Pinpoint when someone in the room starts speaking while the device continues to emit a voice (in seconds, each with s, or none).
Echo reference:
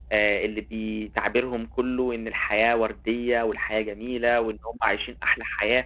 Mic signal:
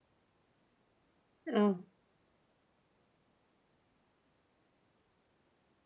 1.5 s